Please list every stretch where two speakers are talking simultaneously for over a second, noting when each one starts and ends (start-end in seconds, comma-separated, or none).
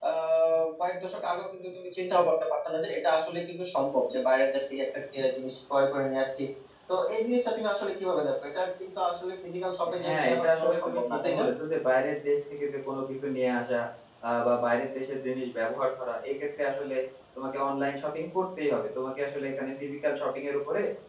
10.0-11.4